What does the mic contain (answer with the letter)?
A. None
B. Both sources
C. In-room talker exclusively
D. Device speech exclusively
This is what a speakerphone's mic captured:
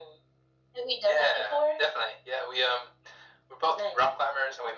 D